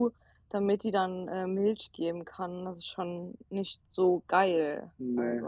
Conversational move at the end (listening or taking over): taking over